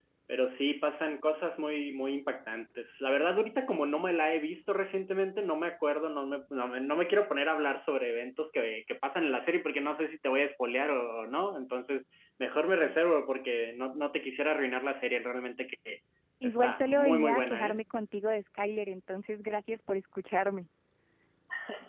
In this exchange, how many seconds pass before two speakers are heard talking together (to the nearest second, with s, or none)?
16 s